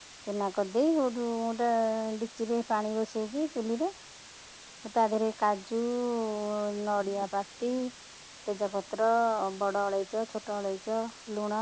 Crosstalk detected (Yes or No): No